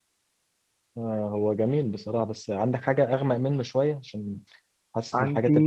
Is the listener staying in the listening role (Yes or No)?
Yes